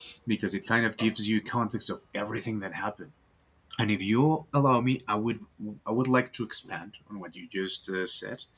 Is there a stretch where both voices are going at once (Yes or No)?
No